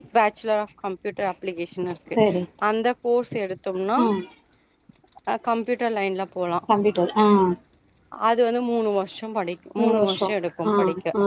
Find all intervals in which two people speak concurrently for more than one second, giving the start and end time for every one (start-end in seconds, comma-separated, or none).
none